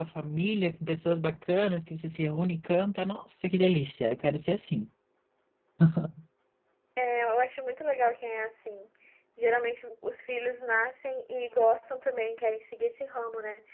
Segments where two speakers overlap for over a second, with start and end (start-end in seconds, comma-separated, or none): none